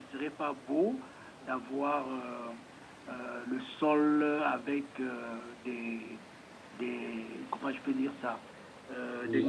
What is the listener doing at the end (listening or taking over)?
taking over